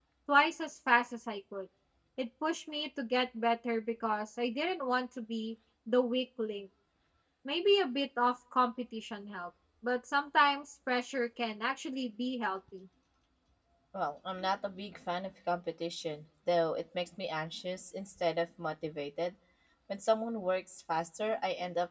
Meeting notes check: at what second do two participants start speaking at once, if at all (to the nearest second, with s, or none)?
none